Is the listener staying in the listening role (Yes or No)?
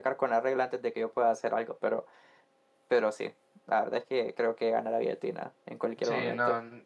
No